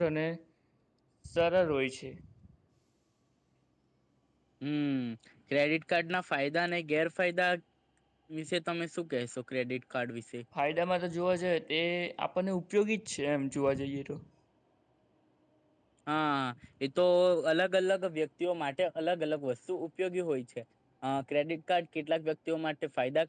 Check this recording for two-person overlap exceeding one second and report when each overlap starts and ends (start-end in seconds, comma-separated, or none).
none